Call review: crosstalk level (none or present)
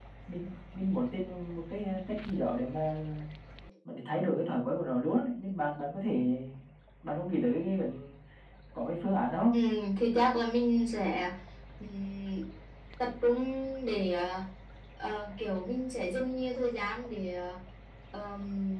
none